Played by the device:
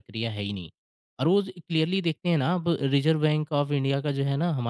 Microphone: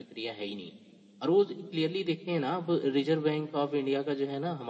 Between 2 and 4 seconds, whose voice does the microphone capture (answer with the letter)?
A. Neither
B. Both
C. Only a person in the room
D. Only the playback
D